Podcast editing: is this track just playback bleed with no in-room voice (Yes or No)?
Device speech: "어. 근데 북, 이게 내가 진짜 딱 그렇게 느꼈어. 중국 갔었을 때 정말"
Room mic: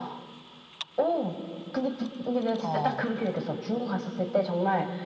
No